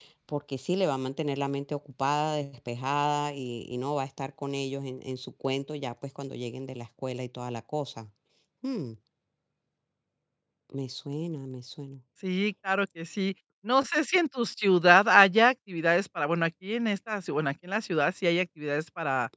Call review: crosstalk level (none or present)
none